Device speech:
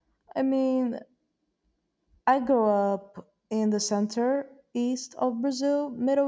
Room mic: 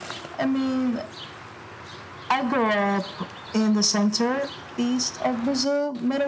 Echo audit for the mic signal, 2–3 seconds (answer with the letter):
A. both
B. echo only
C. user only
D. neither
B